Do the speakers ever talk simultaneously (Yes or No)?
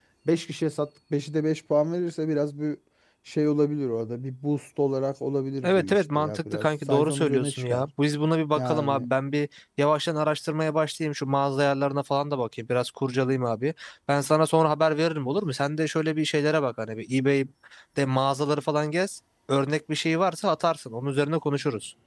Yes